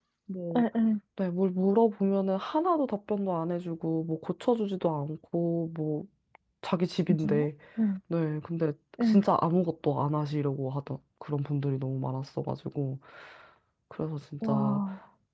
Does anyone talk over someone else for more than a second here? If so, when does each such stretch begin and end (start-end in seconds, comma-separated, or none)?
none